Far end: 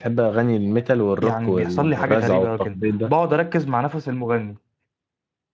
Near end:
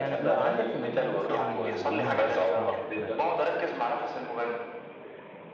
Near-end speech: present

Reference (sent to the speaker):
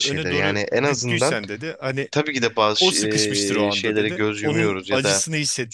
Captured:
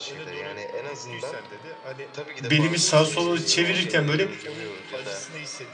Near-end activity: present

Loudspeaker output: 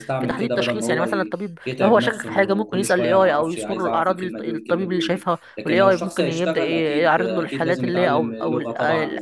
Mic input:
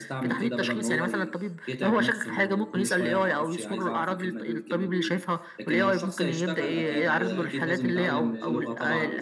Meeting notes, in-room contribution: present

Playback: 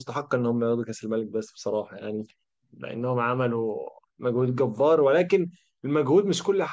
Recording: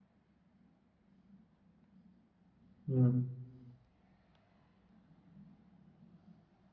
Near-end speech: present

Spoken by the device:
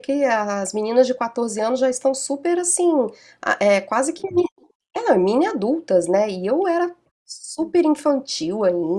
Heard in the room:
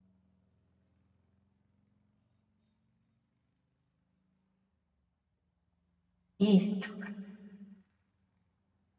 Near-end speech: present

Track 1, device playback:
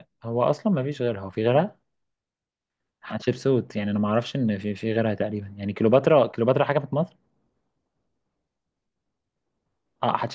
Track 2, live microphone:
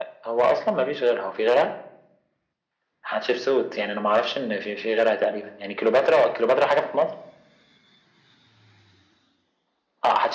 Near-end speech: none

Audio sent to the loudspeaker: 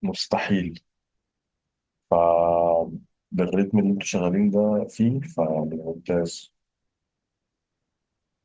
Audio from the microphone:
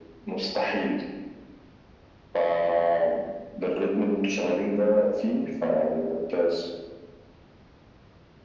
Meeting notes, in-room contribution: none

